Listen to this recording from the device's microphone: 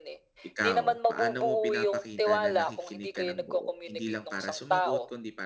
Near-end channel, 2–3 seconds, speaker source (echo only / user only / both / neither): both